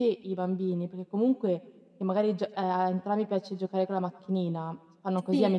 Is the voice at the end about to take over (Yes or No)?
No